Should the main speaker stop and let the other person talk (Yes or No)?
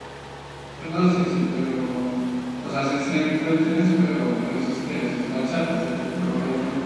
Yes